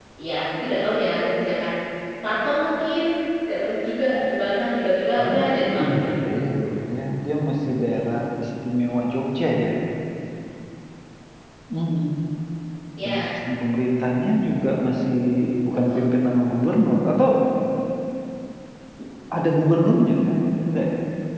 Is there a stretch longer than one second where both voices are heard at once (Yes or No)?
No